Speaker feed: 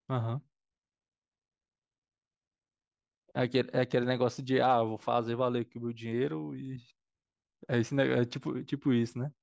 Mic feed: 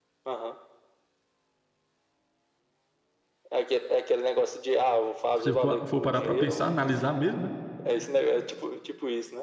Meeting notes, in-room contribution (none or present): present